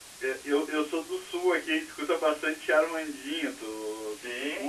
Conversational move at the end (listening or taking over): taking over